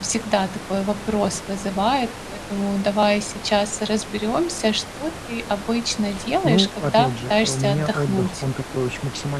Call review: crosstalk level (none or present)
present